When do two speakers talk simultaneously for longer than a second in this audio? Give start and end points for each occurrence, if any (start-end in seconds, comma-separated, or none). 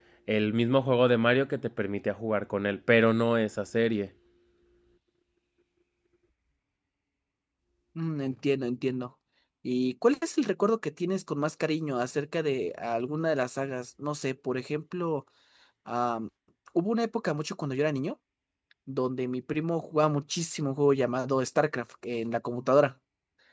none